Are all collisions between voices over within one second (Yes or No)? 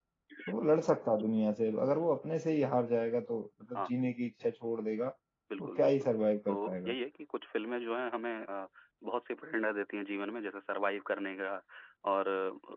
Yes